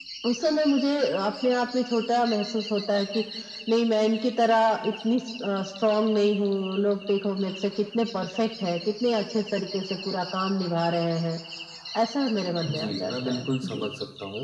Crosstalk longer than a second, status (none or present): present